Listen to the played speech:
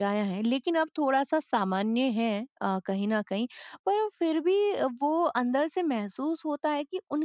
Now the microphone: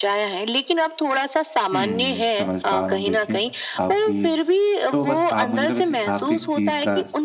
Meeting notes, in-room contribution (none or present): present